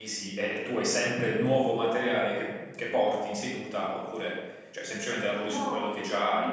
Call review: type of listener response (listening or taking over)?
taking over